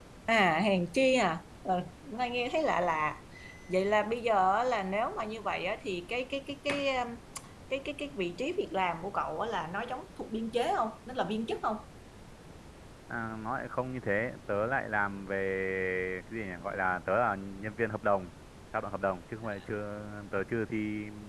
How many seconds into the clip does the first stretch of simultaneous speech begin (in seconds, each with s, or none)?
none